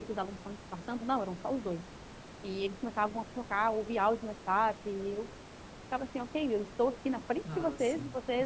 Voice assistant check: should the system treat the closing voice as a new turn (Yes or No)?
No